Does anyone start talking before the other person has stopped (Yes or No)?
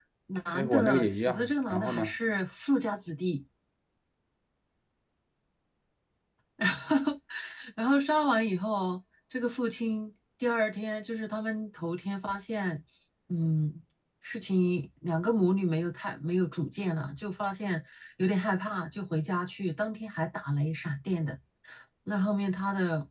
Yes